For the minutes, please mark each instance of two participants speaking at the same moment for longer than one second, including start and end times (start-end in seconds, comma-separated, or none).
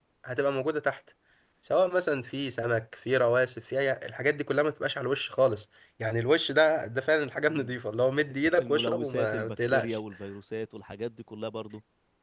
8.6-10.0